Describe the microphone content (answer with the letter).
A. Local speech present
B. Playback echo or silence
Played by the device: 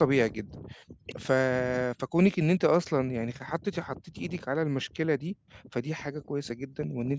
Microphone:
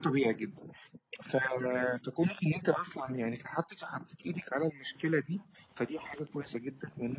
B